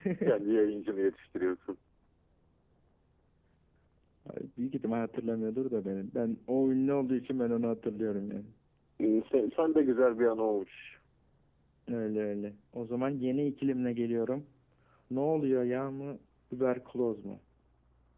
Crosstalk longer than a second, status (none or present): none